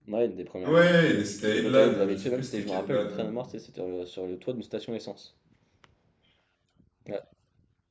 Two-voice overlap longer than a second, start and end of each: 1.4-3.3

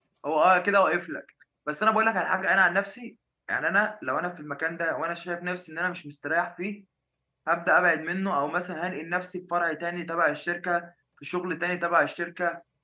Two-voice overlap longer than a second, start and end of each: none

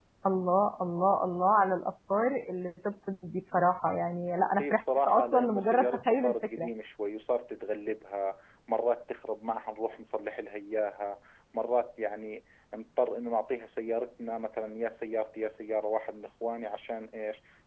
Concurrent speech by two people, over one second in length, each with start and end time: 4.6-6.7

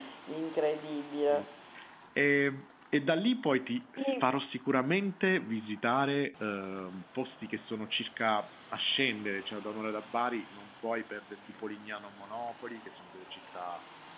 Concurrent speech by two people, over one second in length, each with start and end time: none

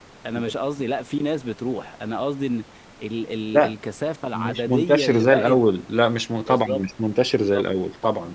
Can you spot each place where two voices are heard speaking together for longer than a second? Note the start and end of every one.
4.3-5.6

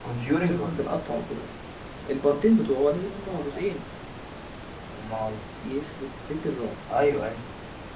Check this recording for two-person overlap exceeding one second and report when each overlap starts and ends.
none

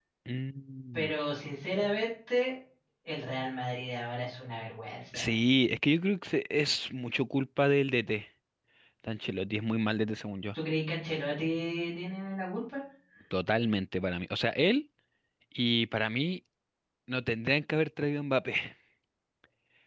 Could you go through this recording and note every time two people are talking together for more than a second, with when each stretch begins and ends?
none

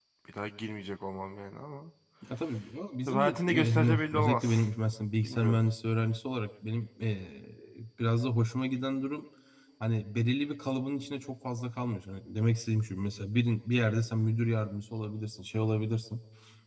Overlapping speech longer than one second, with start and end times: 3.1-4.6

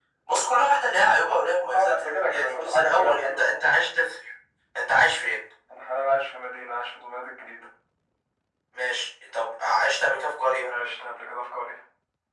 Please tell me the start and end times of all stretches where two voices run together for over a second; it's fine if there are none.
1.7-3.5

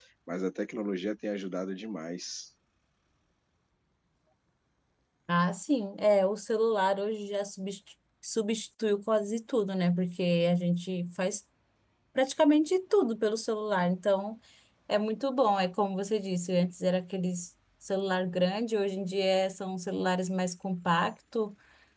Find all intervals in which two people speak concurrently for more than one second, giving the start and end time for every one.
none

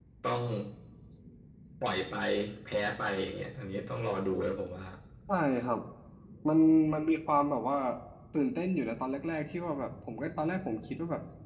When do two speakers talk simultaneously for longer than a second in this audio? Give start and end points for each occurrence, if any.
none

